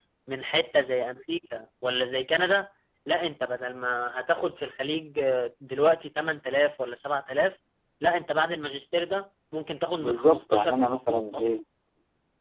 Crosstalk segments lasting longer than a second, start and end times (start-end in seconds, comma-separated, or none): 9.9-11.5